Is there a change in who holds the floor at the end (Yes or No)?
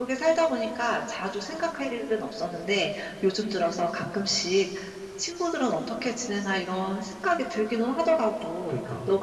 No